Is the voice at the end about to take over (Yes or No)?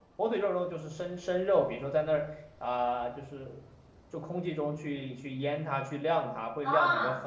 Yes